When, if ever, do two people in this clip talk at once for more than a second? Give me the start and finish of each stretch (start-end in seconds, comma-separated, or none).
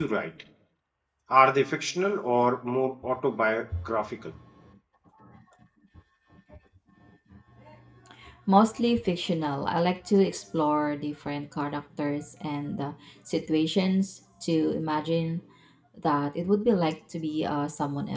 none